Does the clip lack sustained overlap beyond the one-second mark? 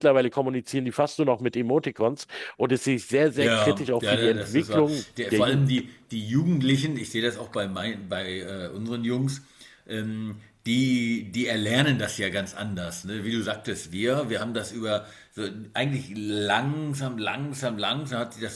No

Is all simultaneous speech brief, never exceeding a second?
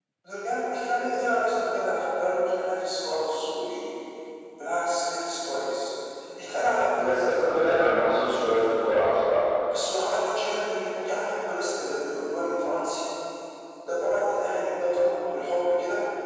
Yes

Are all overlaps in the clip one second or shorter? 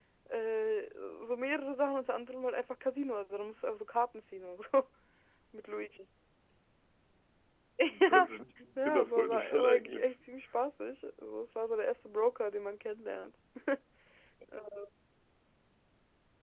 No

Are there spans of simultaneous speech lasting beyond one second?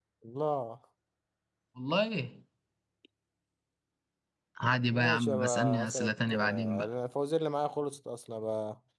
Yes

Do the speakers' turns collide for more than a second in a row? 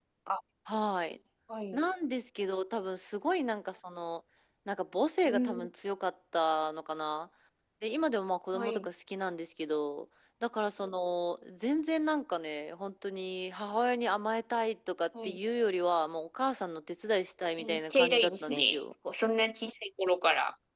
Yes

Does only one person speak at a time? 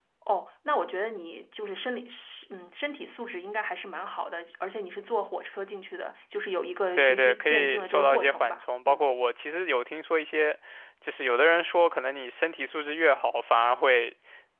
No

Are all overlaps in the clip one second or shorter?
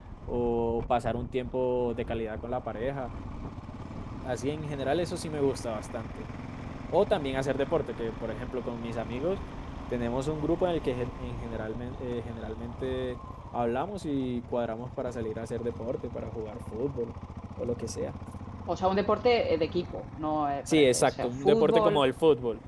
No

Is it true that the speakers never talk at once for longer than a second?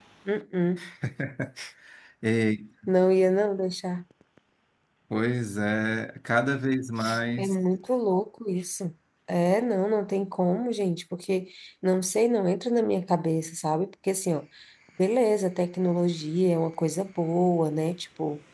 Yes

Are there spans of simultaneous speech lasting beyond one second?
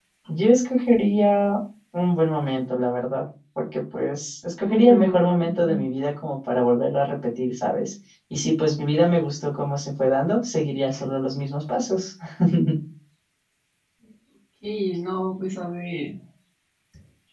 Yes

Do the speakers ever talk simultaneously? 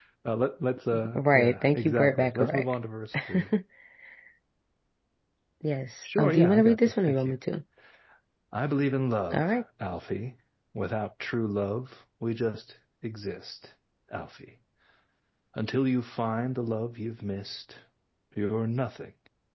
Yes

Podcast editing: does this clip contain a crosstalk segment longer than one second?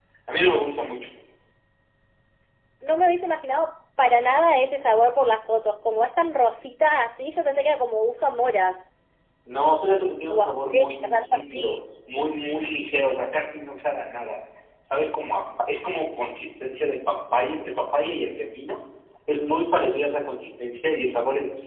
Yes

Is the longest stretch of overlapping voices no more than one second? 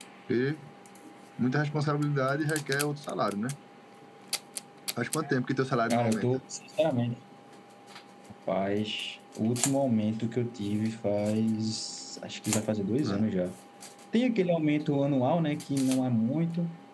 Yes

